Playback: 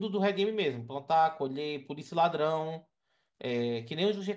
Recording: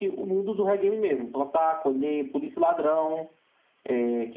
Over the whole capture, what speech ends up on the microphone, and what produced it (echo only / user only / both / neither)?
echo only